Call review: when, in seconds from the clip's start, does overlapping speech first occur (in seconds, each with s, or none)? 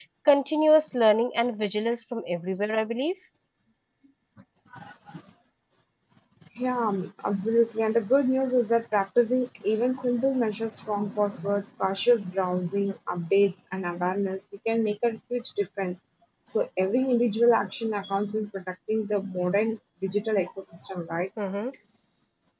none